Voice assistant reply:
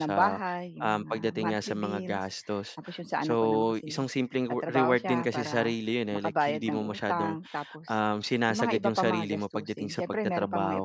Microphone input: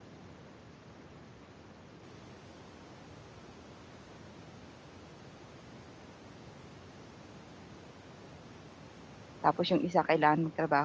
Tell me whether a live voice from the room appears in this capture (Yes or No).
Yes